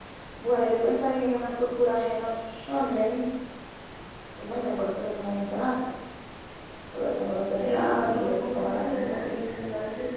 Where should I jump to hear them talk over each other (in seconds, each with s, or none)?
7.6 s